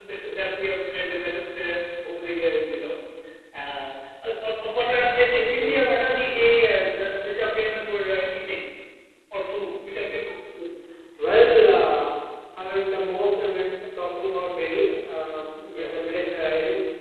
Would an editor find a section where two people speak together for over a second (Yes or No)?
No